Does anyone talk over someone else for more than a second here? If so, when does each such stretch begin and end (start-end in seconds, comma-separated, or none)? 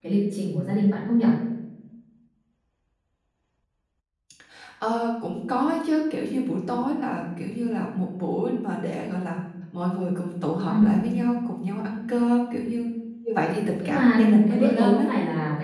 13.8-15.1